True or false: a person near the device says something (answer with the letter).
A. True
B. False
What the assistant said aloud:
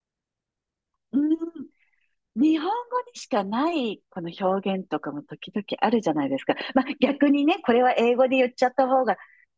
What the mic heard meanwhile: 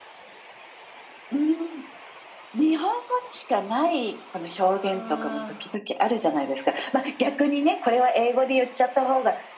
A